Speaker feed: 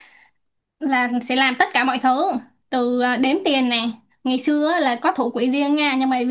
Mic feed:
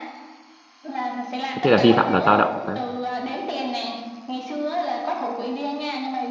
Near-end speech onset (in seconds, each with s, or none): 1.6 s